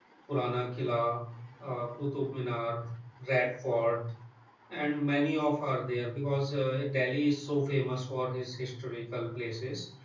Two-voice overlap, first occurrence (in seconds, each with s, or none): none